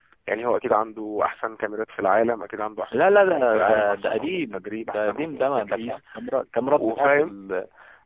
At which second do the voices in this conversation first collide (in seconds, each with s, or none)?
2.9 s